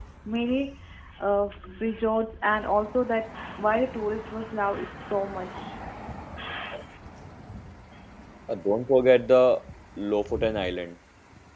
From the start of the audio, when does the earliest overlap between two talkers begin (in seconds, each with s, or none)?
none